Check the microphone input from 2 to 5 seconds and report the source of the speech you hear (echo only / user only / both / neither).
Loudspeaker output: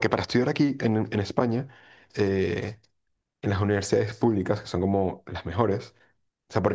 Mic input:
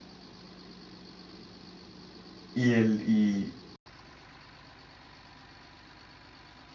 user only